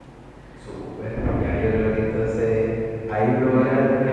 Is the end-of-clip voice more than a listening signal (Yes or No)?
No